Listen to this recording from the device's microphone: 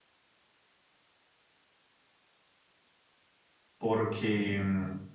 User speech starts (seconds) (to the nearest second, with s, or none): 4 s